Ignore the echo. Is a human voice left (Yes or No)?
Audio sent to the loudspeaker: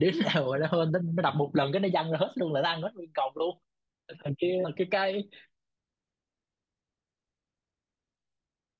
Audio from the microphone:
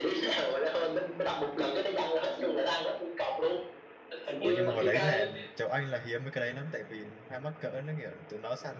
Yes